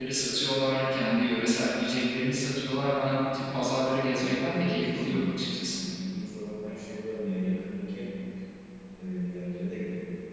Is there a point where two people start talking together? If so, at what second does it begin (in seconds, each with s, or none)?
4.1 s